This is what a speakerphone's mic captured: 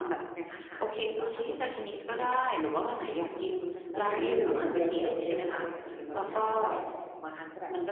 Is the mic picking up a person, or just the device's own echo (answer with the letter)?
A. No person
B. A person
B